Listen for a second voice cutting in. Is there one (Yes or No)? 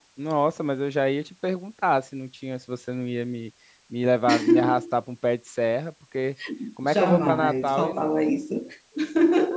Yes